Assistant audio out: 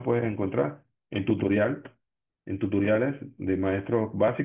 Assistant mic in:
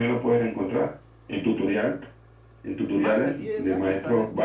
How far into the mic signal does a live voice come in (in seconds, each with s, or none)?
2.8 s